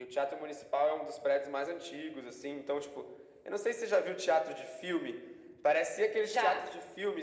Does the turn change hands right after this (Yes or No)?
No